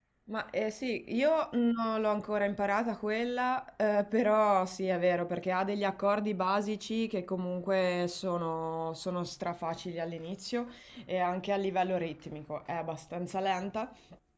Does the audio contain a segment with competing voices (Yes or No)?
No